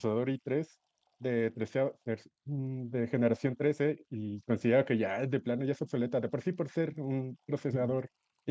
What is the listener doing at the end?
listening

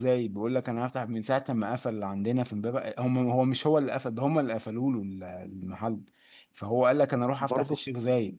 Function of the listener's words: listening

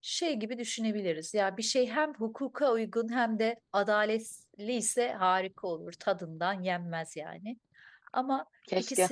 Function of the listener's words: listening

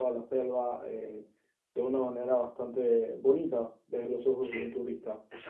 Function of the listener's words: taking over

